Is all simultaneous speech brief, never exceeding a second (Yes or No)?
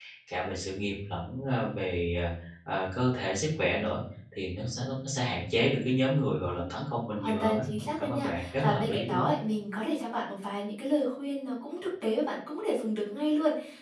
No